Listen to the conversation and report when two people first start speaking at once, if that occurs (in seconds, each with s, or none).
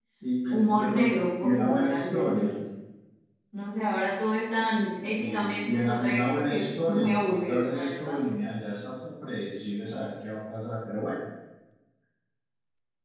0.5 s